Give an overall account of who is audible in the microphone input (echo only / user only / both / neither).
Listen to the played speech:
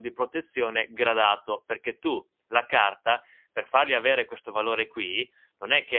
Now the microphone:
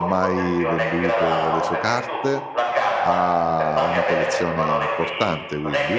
both